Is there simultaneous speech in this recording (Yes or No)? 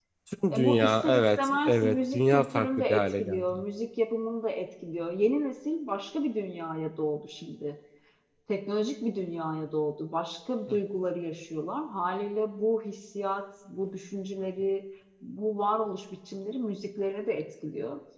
Yes